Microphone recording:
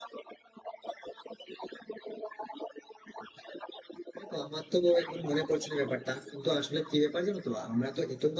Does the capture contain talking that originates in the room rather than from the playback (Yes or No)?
Yes